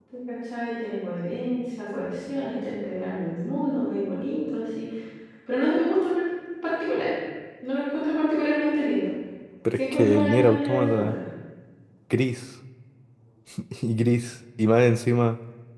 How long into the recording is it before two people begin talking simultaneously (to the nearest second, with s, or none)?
10 s